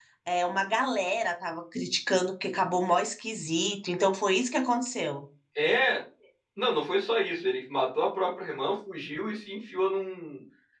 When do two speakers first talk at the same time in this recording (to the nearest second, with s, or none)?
none